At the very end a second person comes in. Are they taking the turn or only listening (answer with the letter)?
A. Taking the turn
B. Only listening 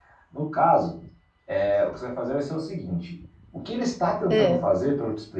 B